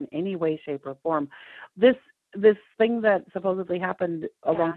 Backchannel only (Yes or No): Yes